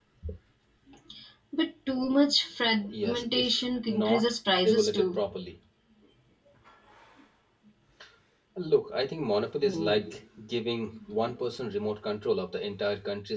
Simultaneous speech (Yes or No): Yes